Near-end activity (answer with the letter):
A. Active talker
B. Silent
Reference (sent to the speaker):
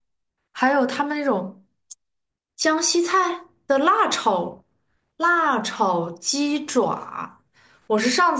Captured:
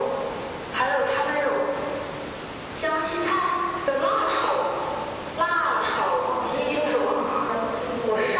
A